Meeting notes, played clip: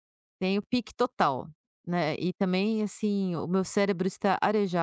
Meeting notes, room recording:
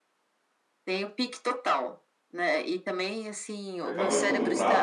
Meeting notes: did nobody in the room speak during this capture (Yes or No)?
No